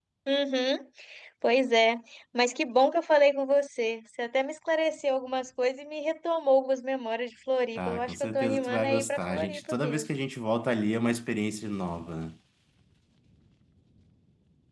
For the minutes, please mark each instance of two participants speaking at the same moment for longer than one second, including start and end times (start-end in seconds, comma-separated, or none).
7.8-10.1